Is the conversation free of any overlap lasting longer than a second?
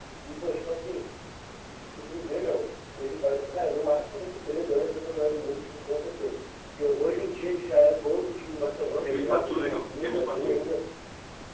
No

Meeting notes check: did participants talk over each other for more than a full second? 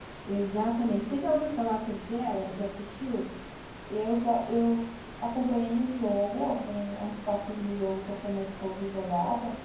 No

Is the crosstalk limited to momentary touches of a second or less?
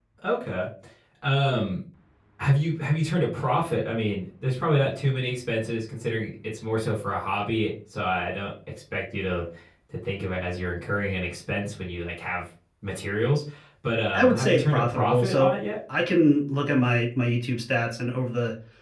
No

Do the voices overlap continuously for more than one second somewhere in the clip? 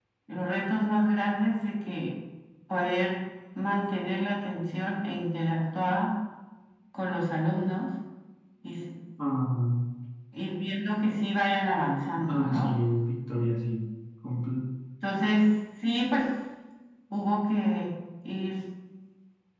No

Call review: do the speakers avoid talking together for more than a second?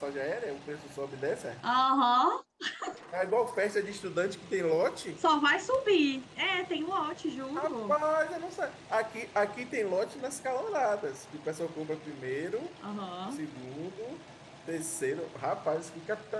Yes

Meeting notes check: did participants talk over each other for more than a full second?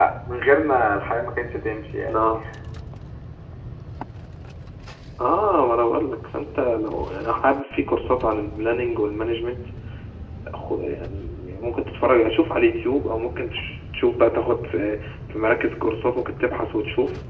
No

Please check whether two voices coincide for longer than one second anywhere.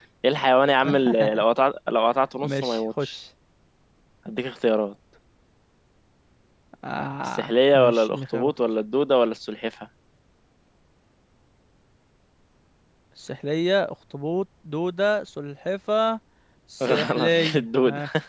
Yes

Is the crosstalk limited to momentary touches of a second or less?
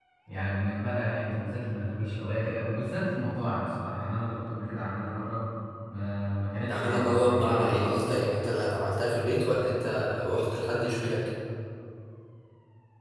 No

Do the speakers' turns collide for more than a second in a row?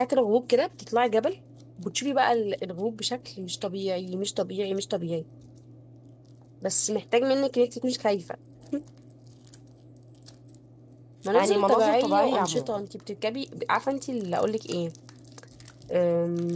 Yes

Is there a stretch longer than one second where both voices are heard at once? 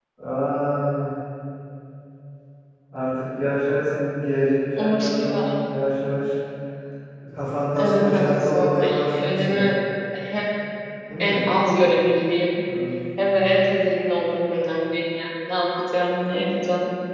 Yes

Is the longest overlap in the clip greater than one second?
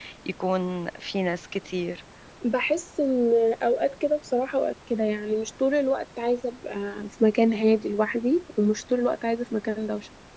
No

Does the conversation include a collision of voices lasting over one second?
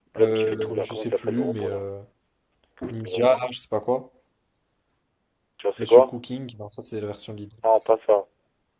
Yes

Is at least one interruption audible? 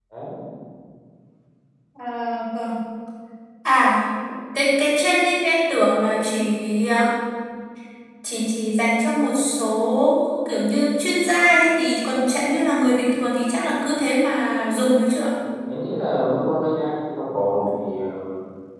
No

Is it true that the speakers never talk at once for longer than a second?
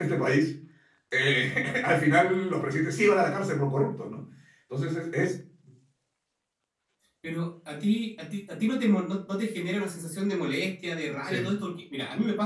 Yes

